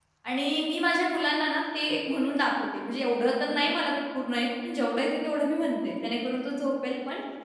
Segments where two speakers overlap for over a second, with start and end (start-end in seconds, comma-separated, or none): none